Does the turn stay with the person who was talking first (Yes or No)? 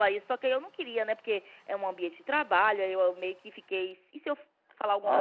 Yes